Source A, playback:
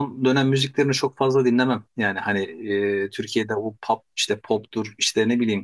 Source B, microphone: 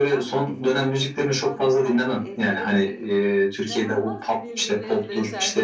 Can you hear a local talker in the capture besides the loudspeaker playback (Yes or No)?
Yes